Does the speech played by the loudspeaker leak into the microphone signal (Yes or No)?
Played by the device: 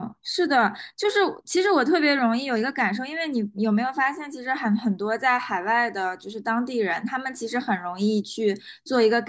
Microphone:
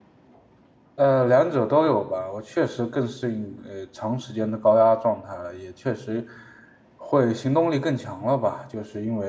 No